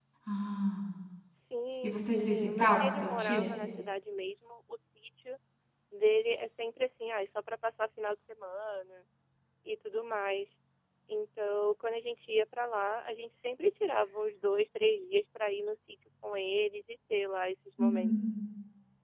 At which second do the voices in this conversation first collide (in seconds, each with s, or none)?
1.8 s